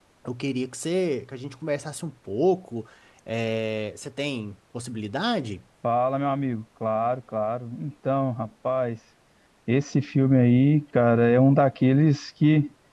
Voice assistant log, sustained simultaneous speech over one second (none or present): none